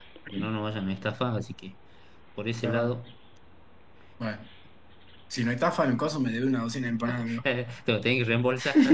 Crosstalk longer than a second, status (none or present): none